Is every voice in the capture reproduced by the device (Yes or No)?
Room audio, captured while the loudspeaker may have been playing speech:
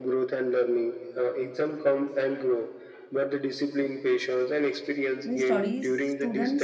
No